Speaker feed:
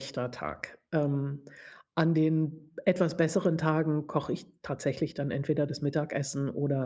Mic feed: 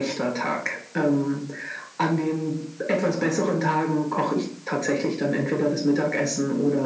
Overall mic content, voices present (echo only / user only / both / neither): echo only